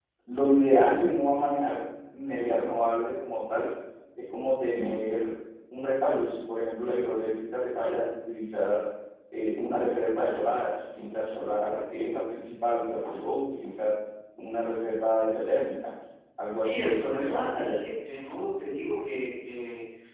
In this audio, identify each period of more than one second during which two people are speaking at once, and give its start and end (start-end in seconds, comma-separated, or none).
16.5-17.8